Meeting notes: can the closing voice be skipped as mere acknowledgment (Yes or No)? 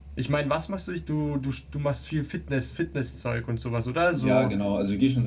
No